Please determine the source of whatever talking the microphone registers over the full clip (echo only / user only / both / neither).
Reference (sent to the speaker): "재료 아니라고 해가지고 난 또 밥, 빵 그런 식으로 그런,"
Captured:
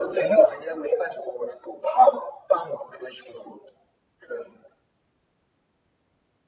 echo only